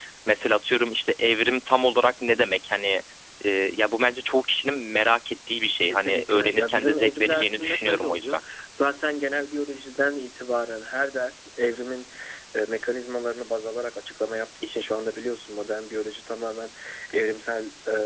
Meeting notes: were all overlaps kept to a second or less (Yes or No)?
No